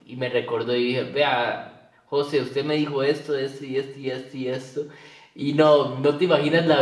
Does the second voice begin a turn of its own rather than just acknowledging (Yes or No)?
No